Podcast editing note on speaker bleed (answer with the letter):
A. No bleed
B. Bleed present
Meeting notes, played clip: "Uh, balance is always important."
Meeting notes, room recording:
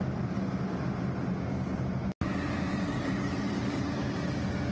A